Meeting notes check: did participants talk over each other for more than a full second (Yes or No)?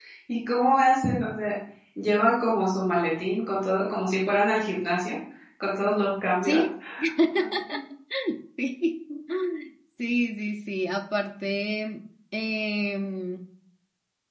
No